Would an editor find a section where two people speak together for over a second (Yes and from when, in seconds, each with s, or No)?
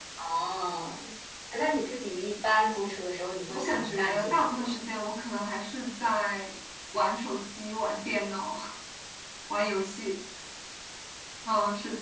Yes, from 3.5 s